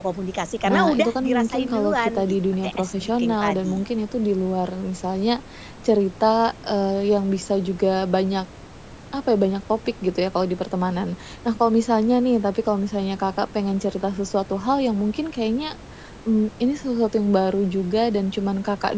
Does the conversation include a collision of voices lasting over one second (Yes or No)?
Yes